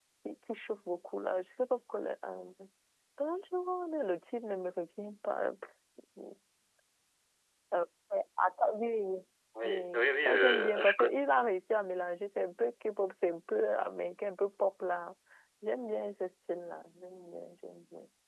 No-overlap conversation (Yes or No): No